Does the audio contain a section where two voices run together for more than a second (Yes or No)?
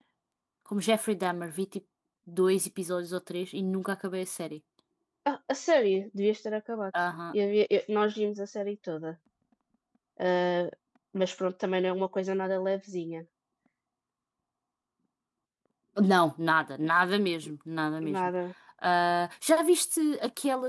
No